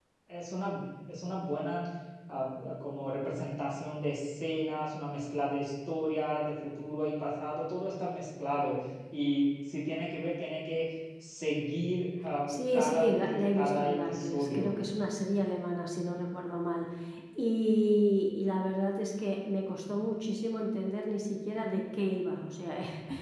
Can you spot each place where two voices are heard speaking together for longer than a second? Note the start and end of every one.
12.7-14.8

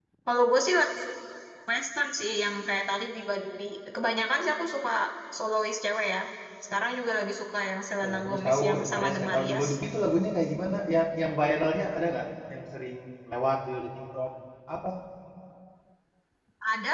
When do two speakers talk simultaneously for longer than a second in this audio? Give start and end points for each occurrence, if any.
8.0-9.7

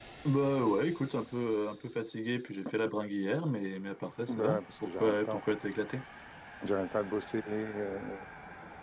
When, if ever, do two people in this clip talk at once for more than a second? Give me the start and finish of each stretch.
4.3-5.5

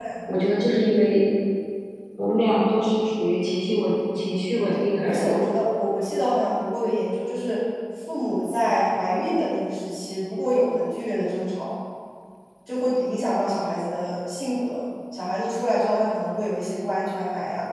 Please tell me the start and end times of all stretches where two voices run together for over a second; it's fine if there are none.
none

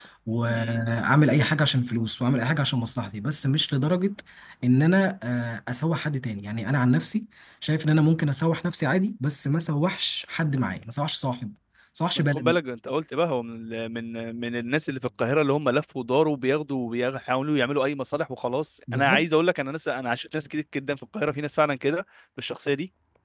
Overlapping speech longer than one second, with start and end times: none

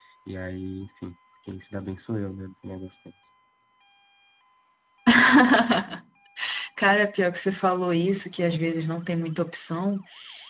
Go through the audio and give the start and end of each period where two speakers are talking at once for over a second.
none

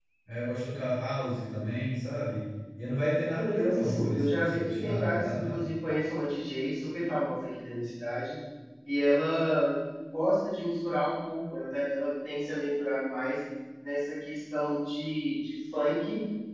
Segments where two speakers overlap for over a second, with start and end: 3.3-5.7

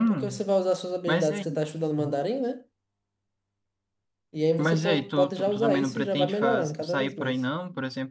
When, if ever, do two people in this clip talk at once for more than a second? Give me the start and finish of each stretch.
4.6-7.4

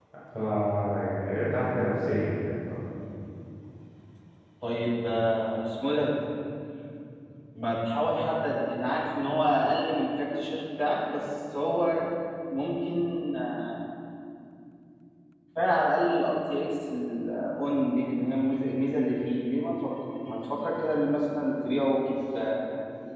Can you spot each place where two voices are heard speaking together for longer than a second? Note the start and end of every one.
none

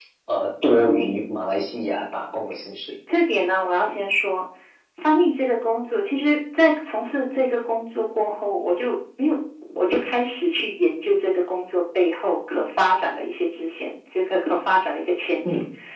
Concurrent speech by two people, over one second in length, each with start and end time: none

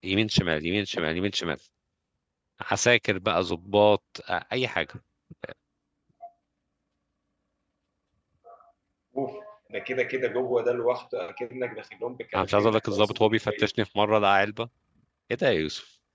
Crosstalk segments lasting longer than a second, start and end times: 12.3-13.7

